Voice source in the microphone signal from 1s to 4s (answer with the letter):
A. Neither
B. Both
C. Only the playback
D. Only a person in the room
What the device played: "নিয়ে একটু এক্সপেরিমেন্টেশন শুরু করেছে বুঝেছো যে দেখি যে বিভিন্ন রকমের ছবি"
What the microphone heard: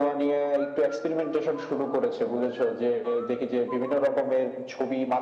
C